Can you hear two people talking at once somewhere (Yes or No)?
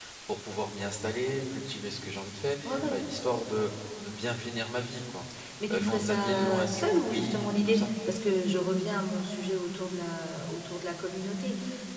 Yes